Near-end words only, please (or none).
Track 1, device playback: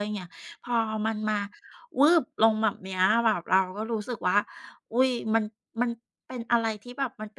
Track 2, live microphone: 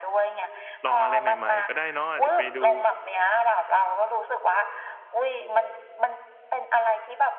ลองอะไรใหม่ๆก็ได้เนาะอาจจะไปดู